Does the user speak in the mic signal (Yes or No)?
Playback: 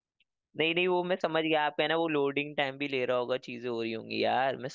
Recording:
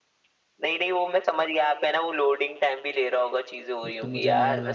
Yes